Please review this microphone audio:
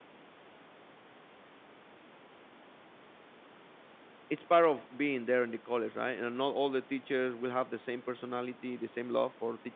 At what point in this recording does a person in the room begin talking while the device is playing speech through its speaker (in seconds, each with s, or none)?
4.3 s